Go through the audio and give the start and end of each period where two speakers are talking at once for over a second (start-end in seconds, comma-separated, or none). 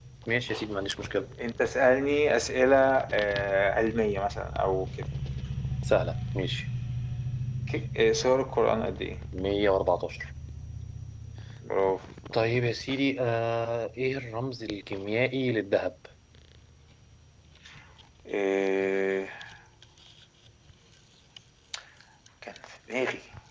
none